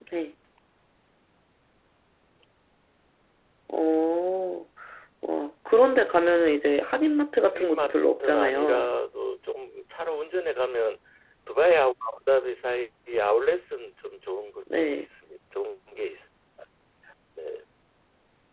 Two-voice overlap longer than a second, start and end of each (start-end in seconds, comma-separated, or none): 7.4-9.0